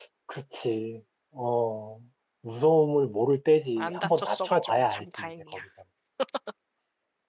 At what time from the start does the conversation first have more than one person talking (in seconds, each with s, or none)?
3.8 s